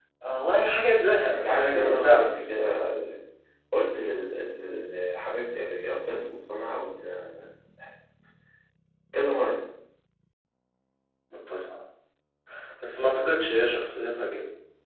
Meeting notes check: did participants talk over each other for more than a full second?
Yes, from 1.3 s

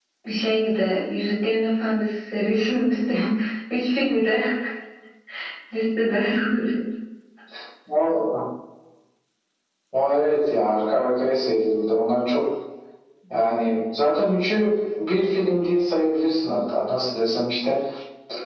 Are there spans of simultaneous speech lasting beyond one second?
No

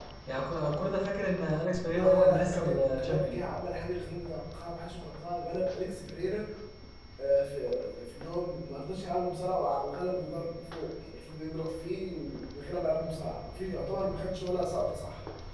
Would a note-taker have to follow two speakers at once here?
Yes, from 1.9 s

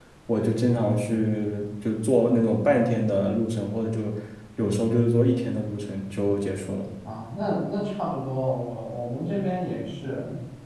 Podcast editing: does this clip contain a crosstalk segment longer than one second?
No

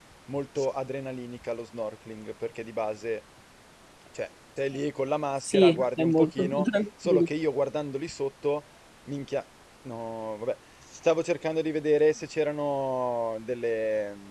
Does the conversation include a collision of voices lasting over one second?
Yes, from 5.4 s

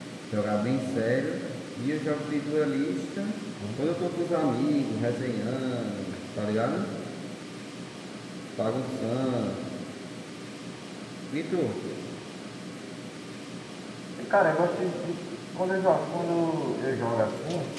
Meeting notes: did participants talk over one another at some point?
No

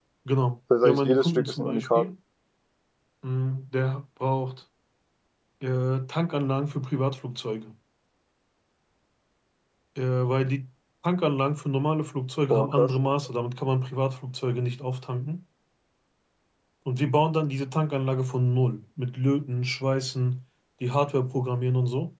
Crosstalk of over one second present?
Yes, from 0.8 s

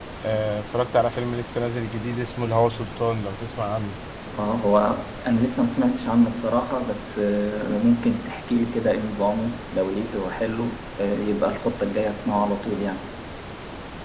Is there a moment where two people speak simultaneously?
No

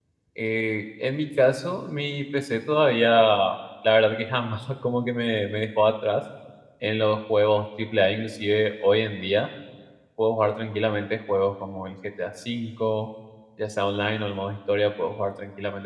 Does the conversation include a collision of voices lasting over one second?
No

